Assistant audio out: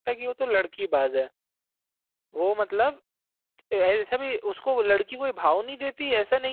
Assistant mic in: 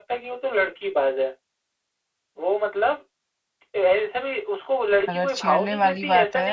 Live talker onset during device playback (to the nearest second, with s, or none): 5 s